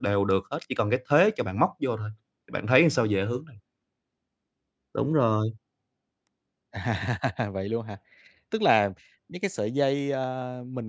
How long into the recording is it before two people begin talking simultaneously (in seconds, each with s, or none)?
none